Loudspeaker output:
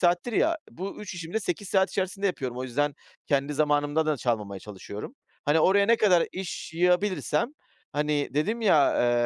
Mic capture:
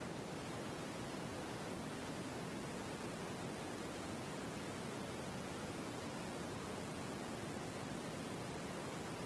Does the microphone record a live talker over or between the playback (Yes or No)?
No